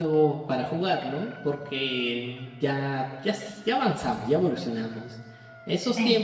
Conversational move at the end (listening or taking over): listening